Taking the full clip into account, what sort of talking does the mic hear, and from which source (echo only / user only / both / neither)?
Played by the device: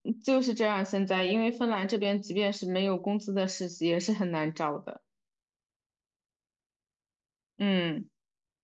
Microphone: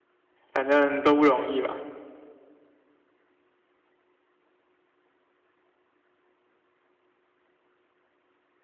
user only